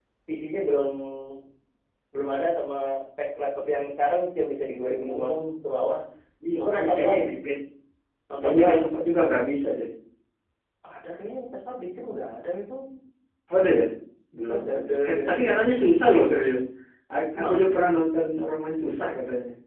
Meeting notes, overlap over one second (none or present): present